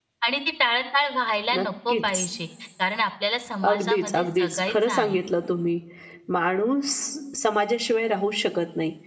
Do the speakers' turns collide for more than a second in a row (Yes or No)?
Yes